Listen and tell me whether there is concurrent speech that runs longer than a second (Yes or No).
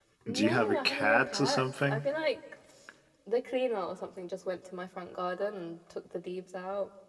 Yes